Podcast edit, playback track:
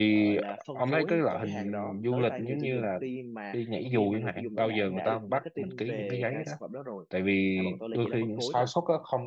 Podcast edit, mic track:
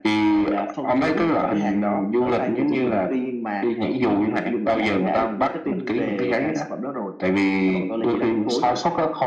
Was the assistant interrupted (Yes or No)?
No